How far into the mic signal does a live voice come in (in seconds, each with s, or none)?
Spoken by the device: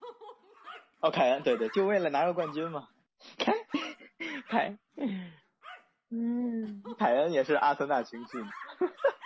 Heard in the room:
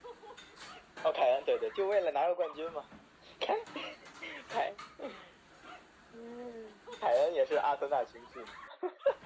none